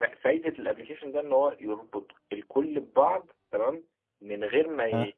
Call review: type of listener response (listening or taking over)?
listening